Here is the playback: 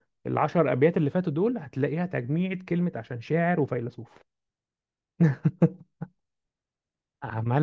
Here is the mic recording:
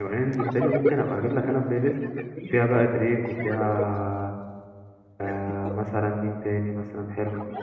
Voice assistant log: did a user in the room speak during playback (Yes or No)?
Yes